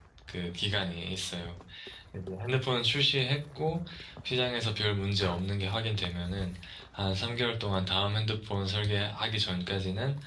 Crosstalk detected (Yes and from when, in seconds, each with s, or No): No